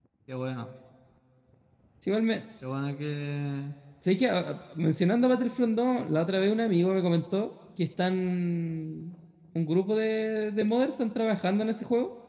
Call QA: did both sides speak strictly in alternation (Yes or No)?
Yes